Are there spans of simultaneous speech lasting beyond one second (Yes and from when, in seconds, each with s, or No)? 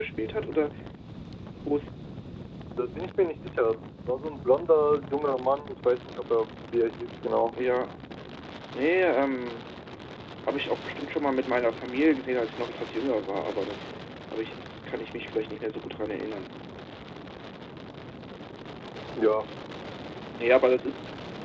No